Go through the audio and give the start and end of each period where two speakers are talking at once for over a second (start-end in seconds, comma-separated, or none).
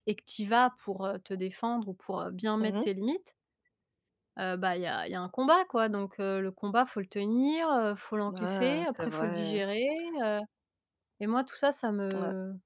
8.4-9.6